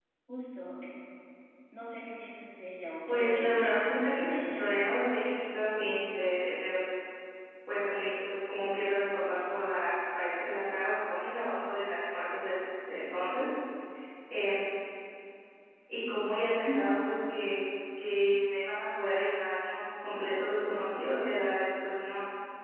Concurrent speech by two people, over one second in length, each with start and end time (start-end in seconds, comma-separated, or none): 3.1-4.7